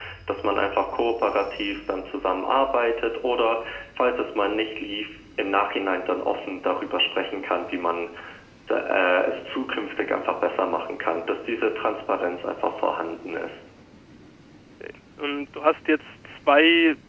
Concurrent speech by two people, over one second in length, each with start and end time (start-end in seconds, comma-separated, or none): none